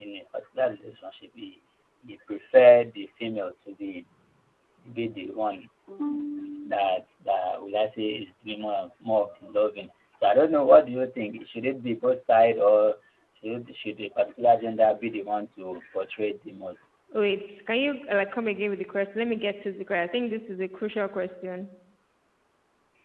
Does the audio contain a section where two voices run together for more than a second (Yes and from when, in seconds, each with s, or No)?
No